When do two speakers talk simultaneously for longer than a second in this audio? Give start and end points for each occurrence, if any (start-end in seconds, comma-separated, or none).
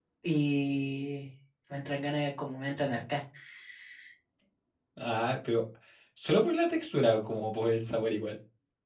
none